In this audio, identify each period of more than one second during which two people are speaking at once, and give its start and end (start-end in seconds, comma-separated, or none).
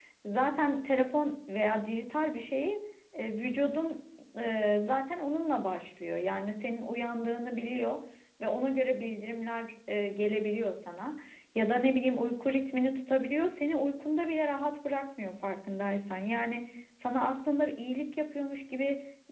none